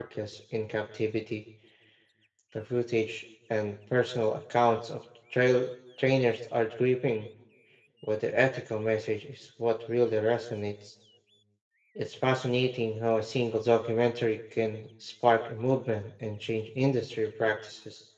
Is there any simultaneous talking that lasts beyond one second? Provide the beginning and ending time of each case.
none

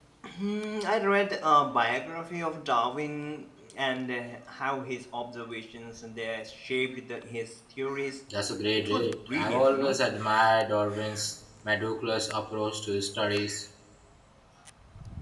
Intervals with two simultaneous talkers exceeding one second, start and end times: 8.8-10.0

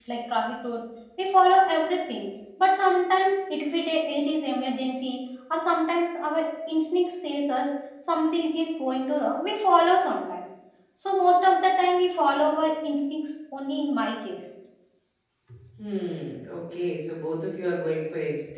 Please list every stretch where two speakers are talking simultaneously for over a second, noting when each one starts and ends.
none

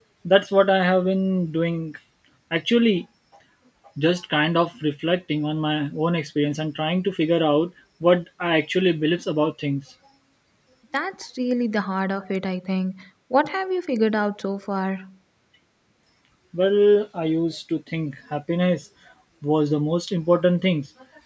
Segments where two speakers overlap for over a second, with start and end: none

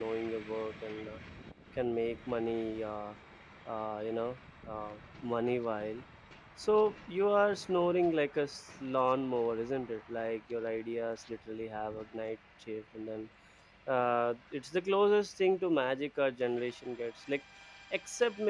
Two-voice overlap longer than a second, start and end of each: none

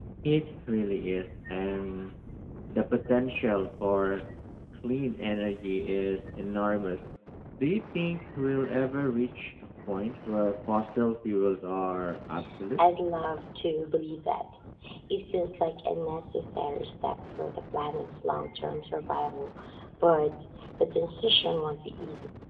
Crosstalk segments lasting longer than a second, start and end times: none

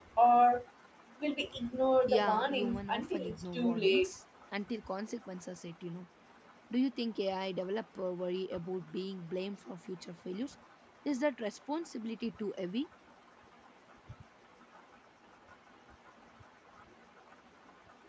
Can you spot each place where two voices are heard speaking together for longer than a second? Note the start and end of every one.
2.1-4.1

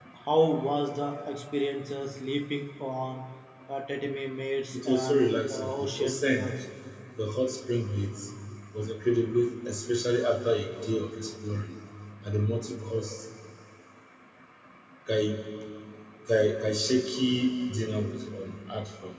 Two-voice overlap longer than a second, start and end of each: 4.7-6.5

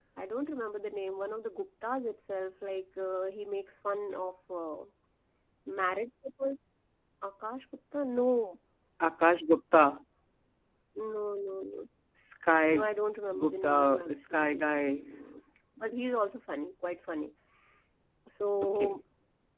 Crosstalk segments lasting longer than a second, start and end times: 13.4-15.0

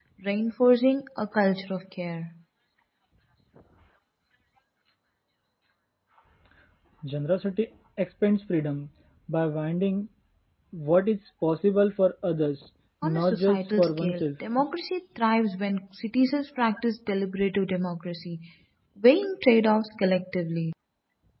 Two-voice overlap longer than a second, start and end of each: 13.0-14.3

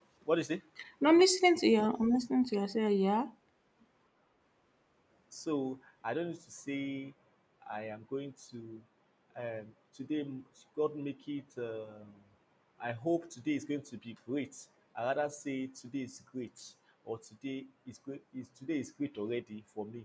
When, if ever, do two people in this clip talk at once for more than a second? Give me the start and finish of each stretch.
none

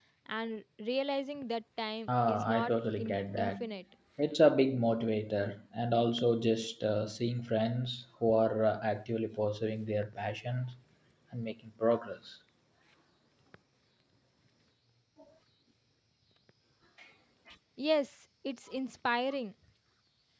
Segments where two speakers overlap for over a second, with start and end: 2.1-3.5

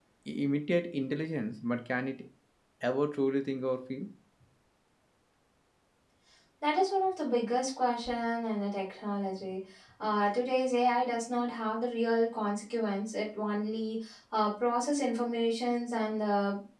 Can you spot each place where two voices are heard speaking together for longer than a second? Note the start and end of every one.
none

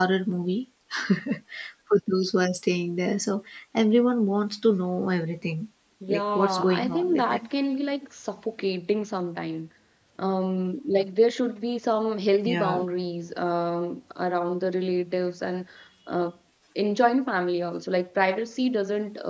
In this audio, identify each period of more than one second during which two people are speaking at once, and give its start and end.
6.1-7.5

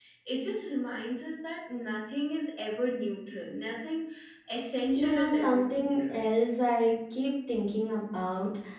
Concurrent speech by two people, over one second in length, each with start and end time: 5.0-6.2

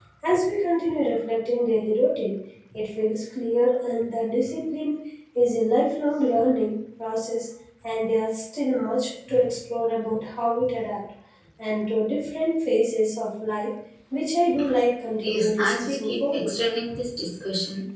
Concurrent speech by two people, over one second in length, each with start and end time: 15.2-16.5

